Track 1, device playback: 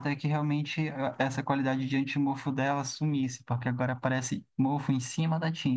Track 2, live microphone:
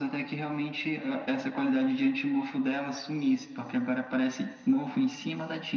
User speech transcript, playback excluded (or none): none